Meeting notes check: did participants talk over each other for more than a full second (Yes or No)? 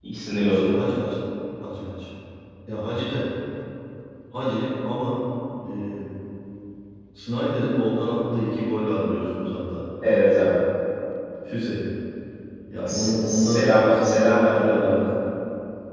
Yes